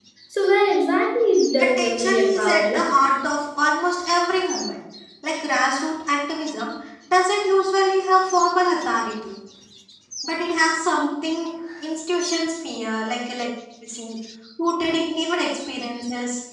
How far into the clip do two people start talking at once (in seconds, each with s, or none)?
1.6 s